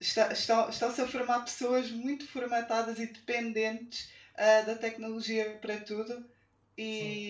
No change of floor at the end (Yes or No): Yes